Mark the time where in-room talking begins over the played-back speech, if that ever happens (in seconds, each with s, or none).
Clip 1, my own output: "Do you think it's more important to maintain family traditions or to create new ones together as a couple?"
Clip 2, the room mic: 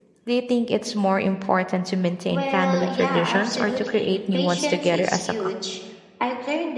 2.2 s